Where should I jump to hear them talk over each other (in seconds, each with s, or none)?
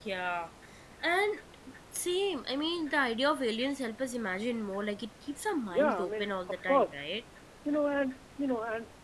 5.7 s